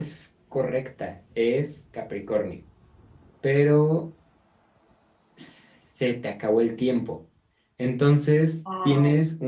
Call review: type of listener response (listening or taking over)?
listening